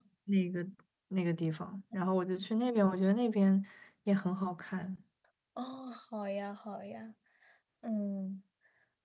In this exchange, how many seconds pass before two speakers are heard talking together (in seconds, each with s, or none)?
none